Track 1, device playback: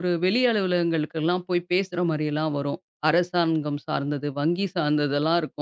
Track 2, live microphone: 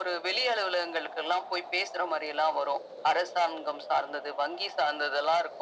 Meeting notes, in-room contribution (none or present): none